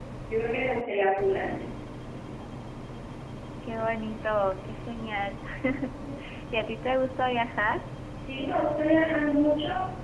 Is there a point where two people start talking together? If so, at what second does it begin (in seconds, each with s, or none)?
none